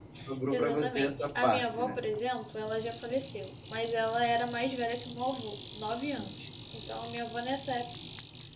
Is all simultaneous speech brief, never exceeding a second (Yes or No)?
No